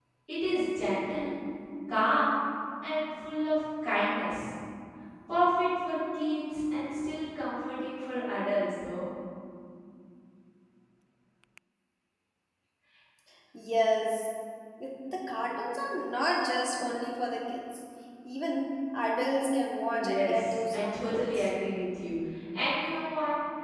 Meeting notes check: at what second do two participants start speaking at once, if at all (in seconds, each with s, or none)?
19.9 s